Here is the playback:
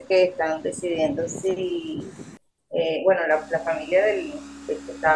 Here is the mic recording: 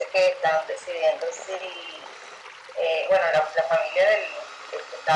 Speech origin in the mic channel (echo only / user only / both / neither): echo only